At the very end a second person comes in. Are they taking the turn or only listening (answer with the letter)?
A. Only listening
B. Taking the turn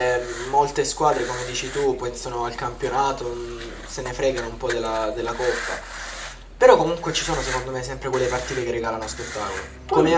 A